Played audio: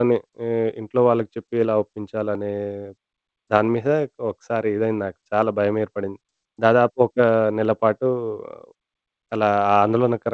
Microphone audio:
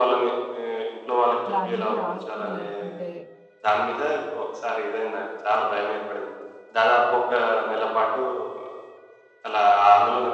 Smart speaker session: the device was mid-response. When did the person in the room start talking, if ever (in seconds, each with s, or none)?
1.4 s